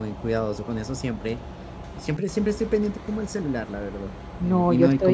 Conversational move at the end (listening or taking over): taking over